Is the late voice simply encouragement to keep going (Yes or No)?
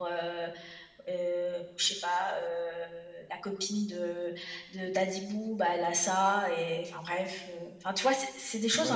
No